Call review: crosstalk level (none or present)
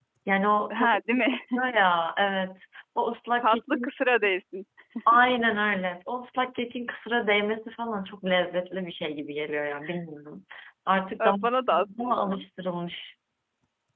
present